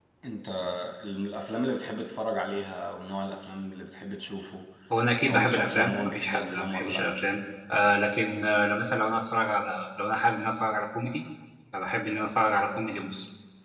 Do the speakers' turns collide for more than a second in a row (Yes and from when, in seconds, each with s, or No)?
Yes, from 5.3 s